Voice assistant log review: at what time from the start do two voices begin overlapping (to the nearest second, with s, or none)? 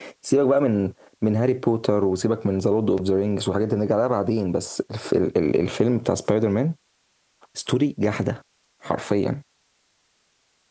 none